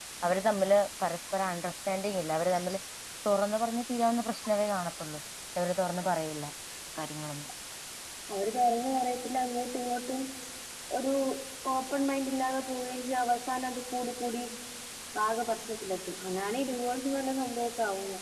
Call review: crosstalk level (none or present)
none